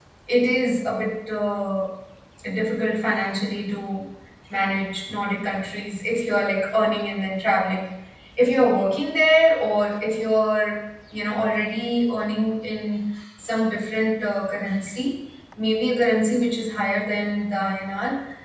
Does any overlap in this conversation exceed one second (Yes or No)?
No